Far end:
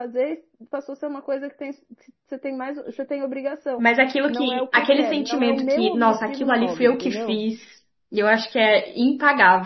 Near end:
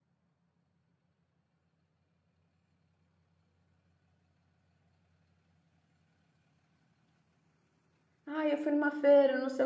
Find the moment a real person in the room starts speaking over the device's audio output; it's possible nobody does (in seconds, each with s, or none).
8.2 s